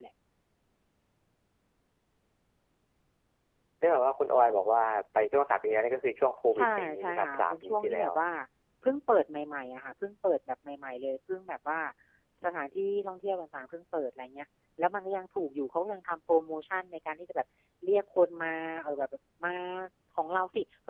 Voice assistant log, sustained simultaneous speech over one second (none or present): present